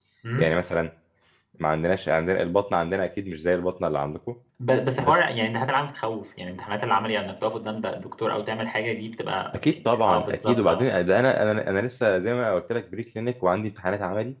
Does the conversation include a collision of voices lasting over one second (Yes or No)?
Yes